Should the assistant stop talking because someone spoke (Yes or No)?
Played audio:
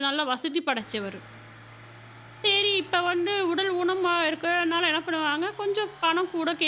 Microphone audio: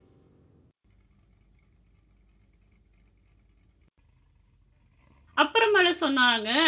Yes